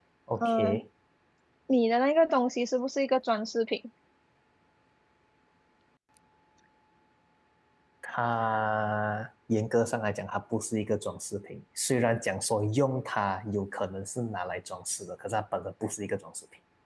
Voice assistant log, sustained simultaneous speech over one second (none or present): none